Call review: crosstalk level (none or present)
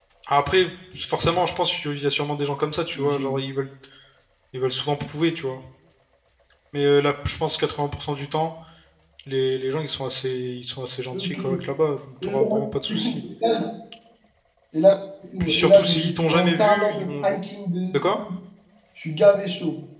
present